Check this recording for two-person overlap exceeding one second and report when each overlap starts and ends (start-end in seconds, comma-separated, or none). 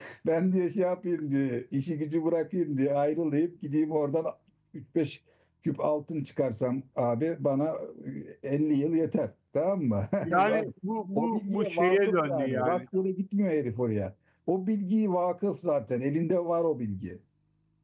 11.2-12.8